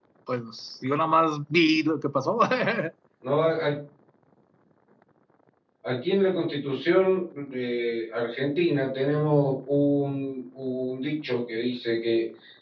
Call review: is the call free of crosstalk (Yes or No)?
Yes